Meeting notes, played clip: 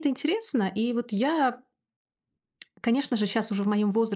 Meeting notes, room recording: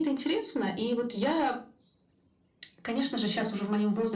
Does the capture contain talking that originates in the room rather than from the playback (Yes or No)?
No